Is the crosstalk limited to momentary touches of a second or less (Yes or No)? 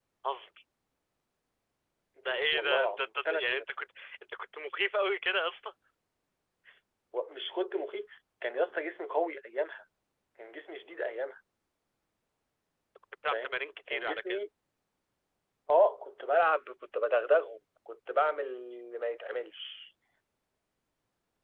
No